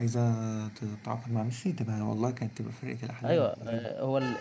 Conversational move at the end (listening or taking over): taking over